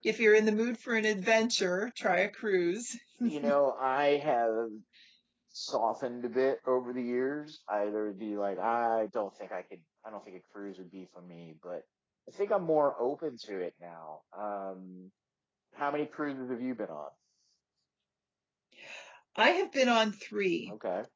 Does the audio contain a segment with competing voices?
No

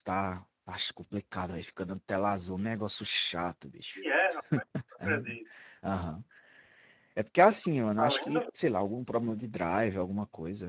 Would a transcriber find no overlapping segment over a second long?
Yes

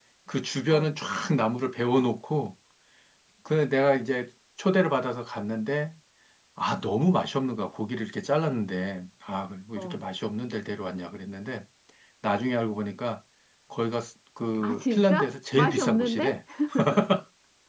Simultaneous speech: Yes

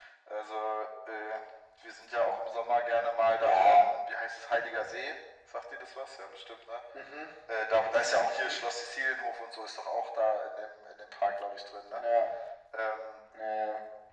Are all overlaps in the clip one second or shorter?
Yes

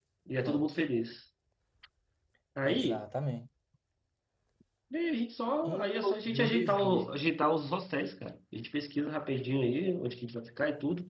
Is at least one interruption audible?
Yes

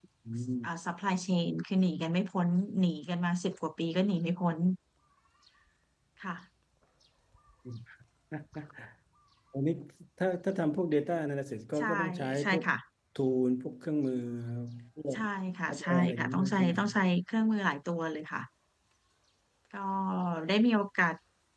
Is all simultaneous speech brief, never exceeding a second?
No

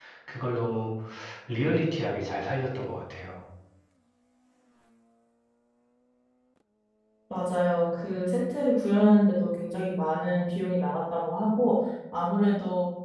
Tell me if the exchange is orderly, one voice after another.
Yes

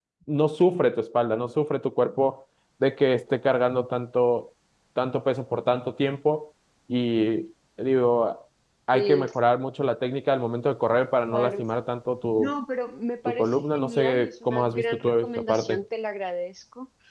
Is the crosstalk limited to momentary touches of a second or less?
No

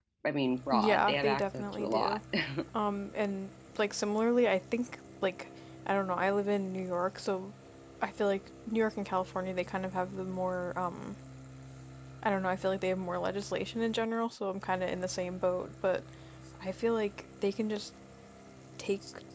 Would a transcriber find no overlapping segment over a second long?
No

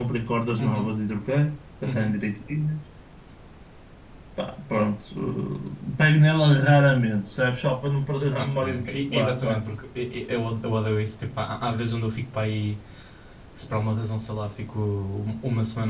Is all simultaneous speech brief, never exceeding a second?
No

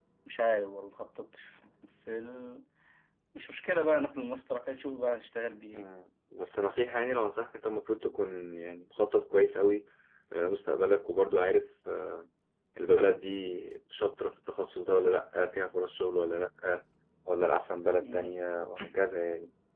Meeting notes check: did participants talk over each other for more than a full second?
No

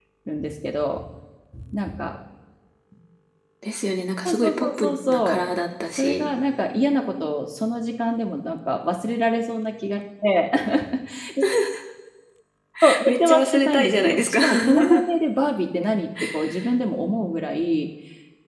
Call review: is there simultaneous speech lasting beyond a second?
Yes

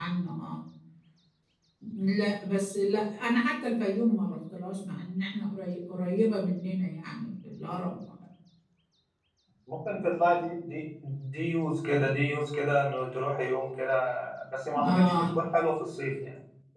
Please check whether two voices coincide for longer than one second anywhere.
No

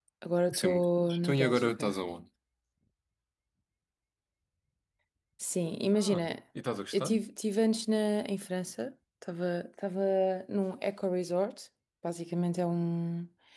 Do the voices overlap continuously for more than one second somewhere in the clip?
Yes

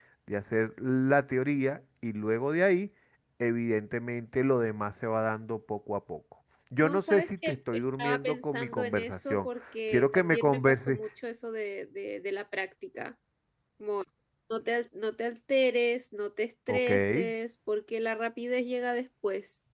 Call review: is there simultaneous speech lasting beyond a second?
Yes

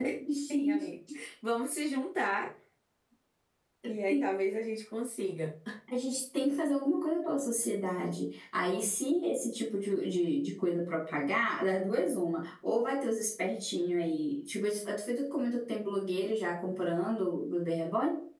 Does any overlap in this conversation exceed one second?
No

